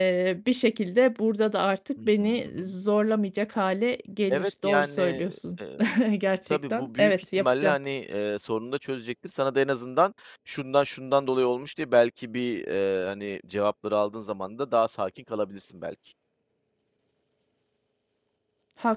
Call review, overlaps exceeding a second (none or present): present